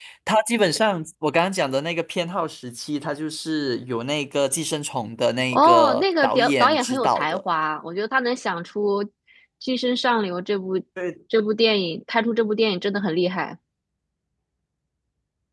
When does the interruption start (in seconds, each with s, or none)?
5.5 s